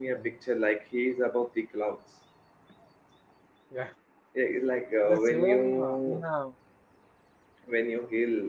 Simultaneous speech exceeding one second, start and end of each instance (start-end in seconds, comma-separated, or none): 5.0-6.2